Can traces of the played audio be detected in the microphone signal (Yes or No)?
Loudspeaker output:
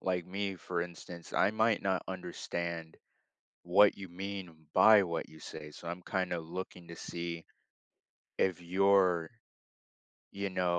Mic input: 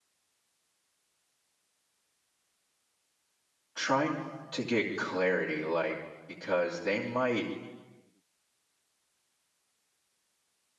No